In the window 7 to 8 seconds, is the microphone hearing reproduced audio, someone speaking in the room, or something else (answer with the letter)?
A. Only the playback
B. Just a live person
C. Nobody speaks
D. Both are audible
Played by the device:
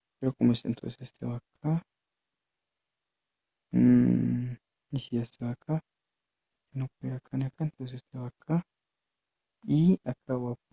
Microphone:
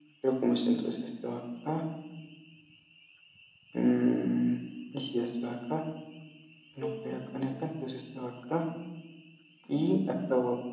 D